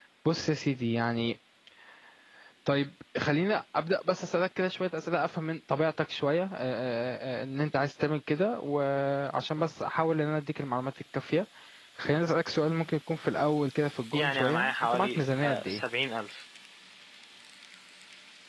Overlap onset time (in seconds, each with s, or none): 14.1 s